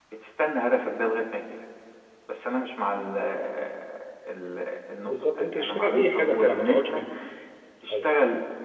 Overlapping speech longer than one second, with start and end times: 5.0-7.0

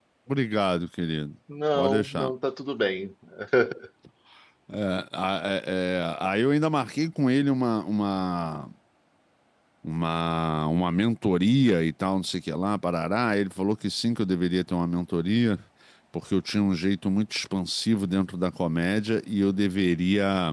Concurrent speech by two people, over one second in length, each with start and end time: none

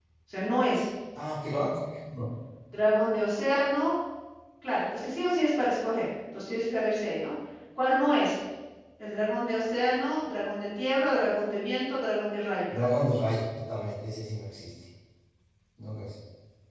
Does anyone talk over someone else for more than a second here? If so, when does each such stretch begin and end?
none

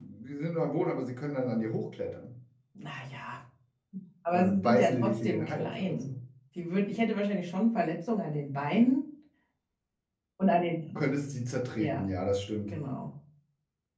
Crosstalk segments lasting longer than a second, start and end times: 4.3-6.1

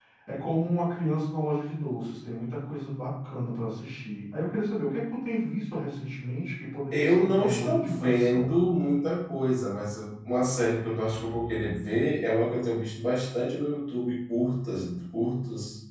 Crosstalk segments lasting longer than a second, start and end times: 6.9-8.6

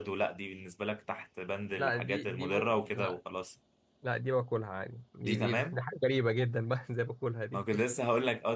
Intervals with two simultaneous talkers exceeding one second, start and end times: 1.8-3.2

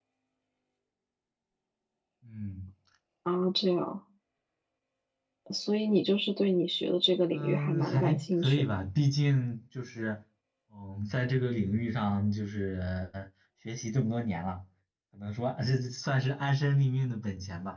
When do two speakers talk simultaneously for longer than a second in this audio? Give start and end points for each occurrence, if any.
7.3-8.6

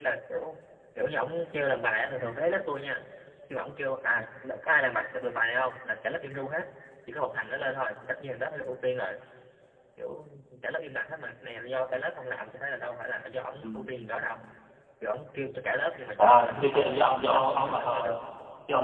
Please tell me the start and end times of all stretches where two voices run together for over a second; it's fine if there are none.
16.2-18.2

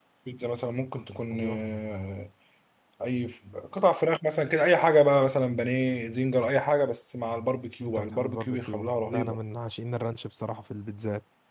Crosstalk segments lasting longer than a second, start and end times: 7.8-9.4

